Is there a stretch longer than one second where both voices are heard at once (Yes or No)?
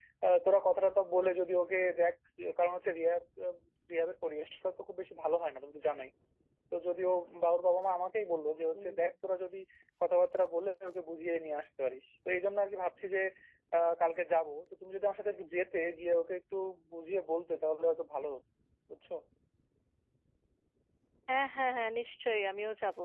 No